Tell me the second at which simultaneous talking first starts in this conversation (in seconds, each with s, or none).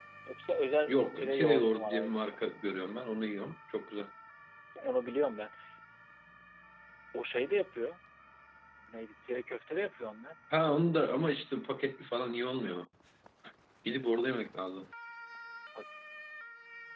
0.9 s